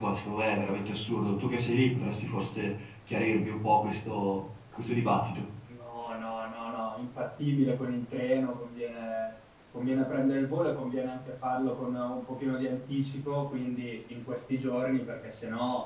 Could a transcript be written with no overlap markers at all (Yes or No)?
Yes